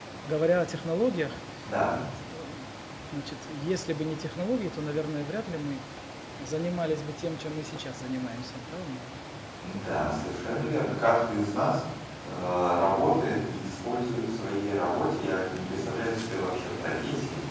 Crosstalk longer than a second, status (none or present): none